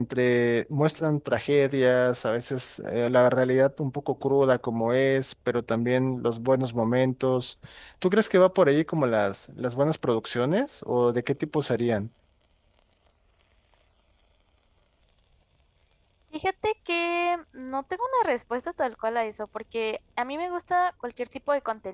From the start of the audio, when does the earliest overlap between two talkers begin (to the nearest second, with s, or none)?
none